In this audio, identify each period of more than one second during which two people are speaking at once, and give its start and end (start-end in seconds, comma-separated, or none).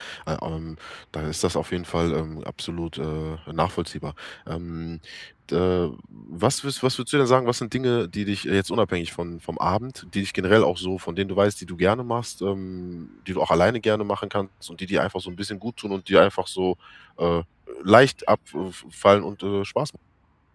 none